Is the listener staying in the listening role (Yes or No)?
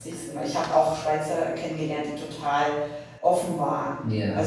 Yes